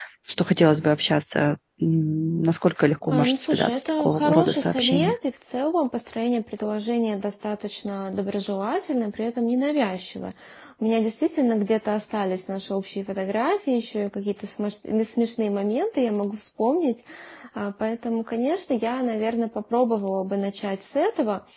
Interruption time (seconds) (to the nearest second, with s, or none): 3 s